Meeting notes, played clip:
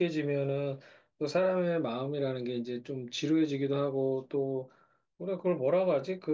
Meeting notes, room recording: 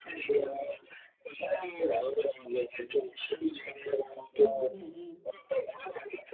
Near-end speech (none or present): present